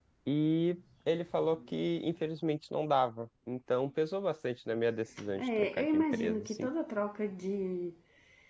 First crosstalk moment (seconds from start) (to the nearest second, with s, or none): 5 s